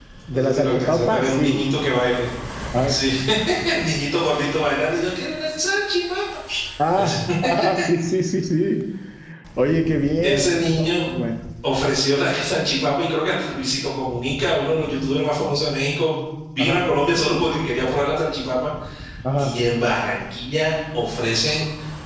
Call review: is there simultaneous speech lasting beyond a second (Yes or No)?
Yes